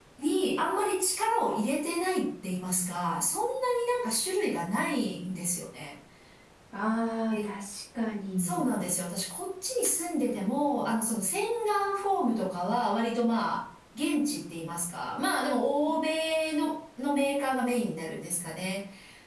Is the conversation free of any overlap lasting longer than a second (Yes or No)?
Yes